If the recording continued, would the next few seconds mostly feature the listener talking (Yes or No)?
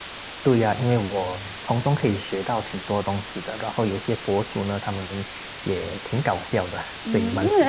Yes